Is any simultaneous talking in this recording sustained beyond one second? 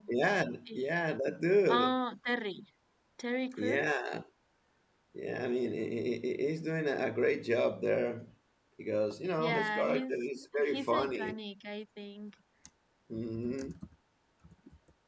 Yes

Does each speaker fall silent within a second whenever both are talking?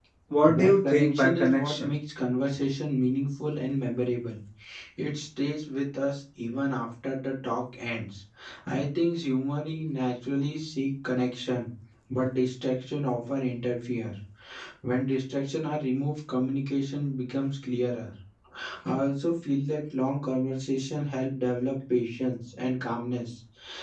No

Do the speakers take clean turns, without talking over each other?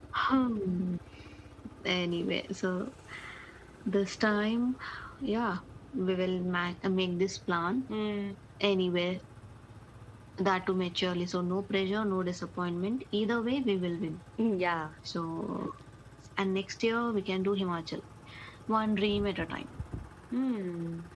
Yes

